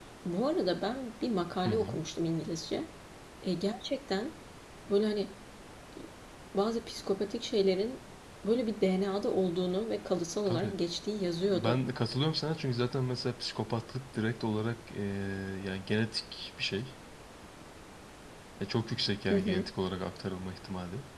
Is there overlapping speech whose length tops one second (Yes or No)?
No